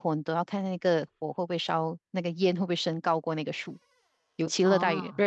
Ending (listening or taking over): listening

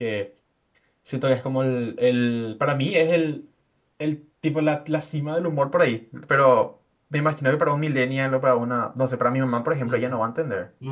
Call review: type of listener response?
taking over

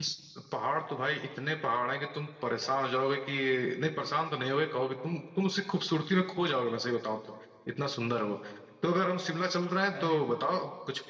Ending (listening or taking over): listening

